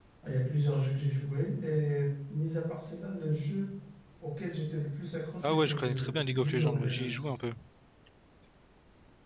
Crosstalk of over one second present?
Yes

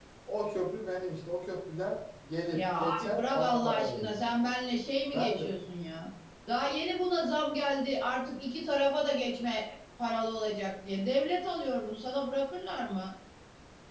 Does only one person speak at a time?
No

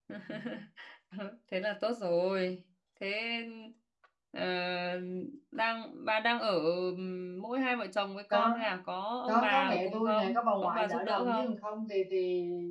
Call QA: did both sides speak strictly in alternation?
No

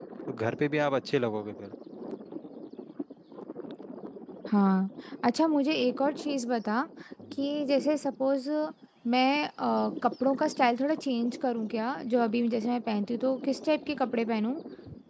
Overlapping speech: No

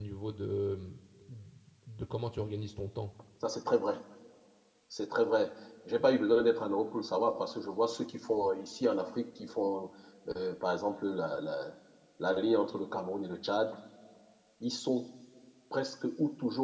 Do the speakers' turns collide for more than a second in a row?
No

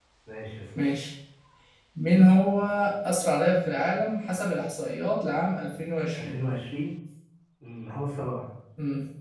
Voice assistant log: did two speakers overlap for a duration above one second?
No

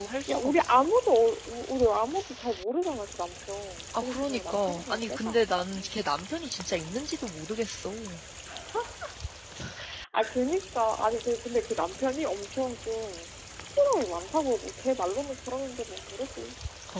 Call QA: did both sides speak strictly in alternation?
No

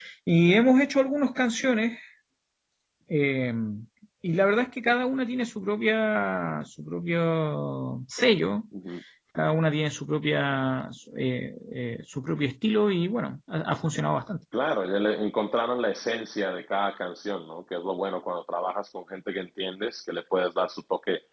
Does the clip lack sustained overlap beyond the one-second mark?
Yes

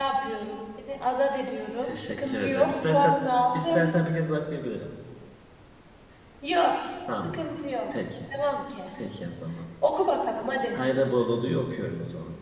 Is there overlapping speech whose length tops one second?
Yes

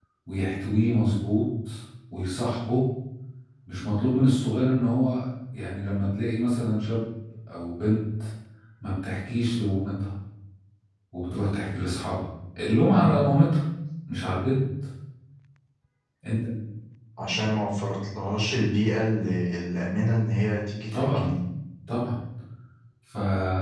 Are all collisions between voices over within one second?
Yes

